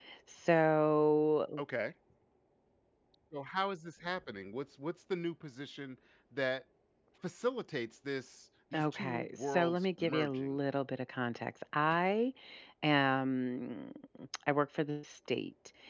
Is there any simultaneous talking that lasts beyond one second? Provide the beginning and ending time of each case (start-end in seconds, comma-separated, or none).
8.8-10.6